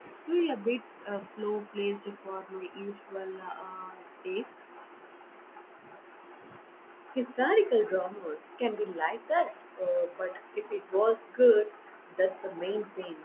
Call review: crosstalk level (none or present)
none